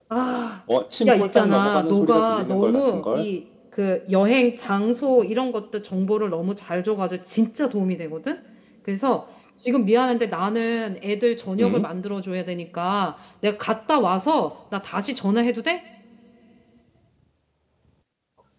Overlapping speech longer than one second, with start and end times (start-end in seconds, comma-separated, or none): 1.1-3.3